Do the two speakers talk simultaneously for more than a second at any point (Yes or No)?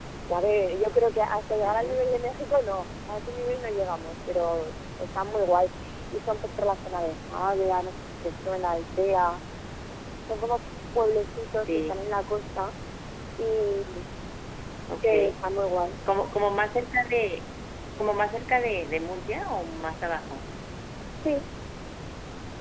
No